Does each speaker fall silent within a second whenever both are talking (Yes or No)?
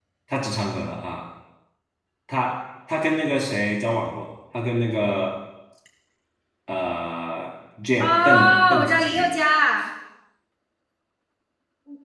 No